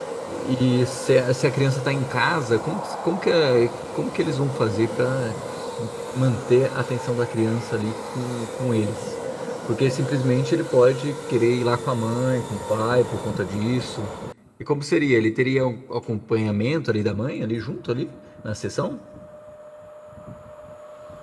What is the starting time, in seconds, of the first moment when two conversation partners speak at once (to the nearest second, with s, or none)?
none